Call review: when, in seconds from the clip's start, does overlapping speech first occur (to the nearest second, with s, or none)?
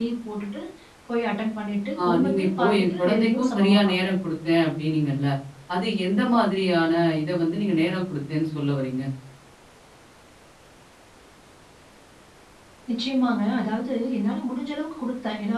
2 s